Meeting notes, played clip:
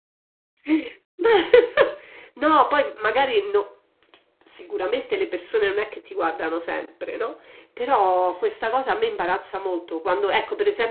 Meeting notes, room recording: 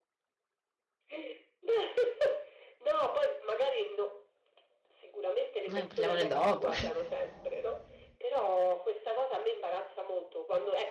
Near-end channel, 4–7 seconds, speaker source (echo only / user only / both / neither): both